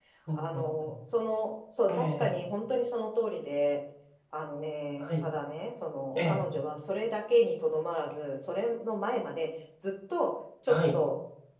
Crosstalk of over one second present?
No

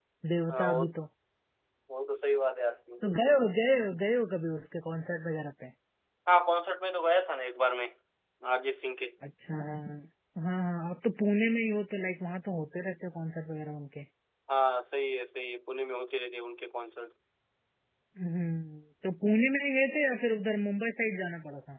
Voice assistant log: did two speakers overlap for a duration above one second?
No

